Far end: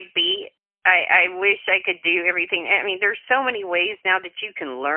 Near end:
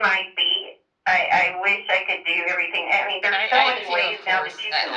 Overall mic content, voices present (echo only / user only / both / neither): both